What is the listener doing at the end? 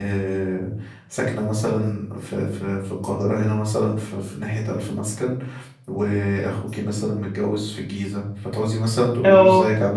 listening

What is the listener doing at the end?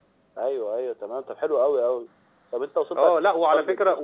taking over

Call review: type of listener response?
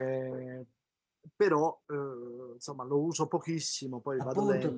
taking over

